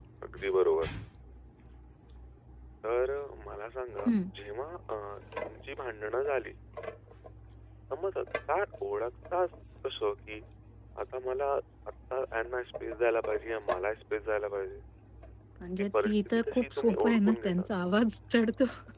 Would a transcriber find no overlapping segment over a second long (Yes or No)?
No